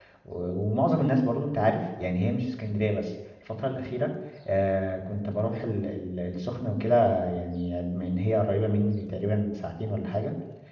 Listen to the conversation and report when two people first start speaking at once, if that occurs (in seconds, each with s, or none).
none